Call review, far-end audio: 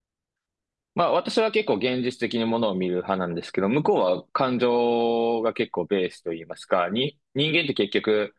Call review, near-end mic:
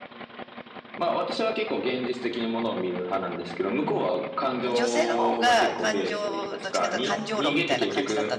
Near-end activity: present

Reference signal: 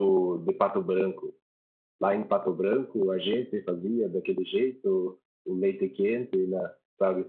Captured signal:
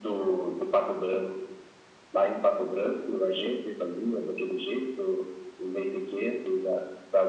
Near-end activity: none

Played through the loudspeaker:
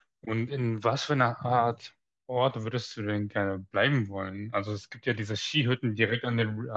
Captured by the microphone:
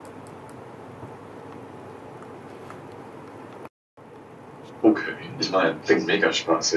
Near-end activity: present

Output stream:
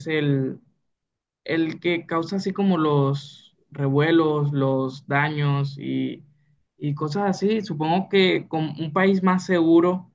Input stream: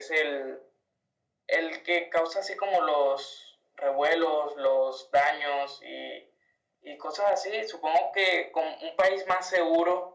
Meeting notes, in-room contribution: none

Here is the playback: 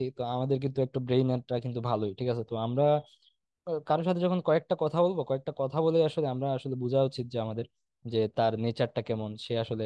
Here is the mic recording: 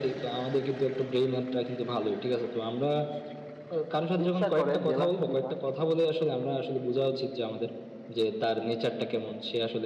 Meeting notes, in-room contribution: present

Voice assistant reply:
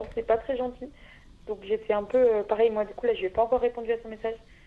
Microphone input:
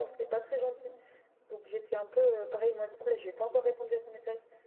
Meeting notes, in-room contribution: none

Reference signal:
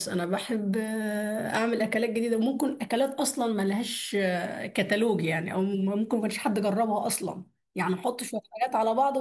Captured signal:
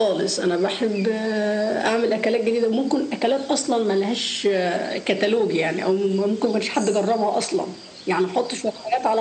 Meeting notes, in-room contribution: none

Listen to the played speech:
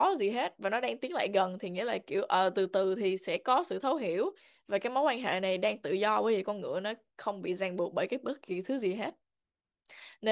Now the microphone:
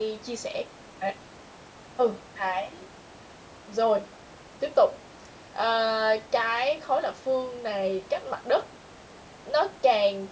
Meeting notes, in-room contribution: present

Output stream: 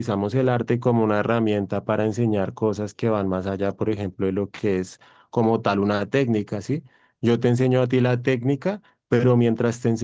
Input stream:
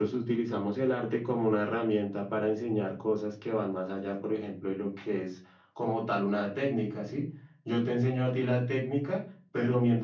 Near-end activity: none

